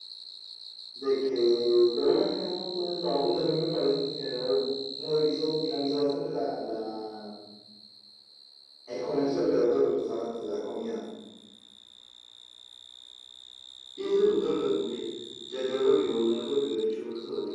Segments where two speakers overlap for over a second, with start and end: none

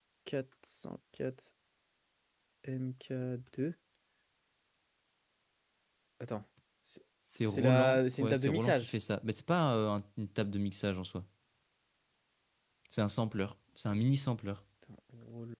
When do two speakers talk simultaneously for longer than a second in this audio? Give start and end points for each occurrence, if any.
7.4-8.9

